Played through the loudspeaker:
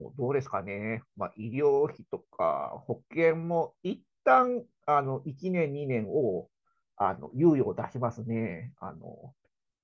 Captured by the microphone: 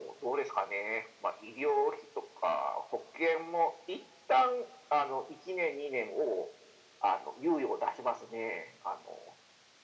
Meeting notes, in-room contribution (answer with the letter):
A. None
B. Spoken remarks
A